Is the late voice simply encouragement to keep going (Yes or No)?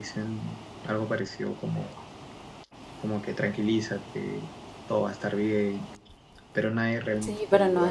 No